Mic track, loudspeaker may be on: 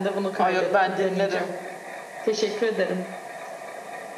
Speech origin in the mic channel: both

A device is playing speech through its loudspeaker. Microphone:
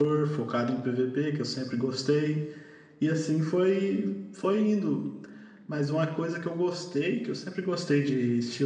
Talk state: user only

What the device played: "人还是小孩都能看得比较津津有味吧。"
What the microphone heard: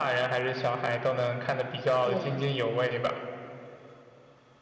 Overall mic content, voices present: both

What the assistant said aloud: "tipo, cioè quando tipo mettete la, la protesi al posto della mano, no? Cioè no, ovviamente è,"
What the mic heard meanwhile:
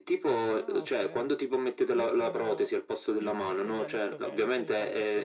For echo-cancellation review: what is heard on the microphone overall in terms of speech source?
both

